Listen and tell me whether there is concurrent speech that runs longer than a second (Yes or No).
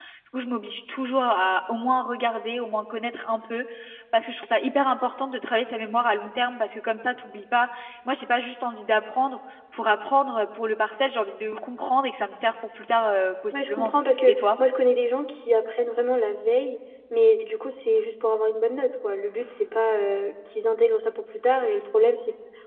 No